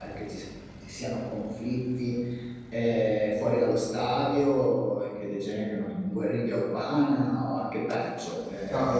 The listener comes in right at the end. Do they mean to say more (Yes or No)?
Yes